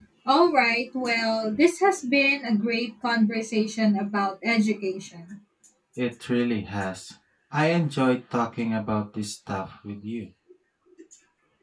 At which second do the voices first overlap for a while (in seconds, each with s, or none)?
none